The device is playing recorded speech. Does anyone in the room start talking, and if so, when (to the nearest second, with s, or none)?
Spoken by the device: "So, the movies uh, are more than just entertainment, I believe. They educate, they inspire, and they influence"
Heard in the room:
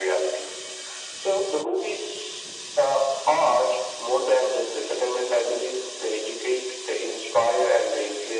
none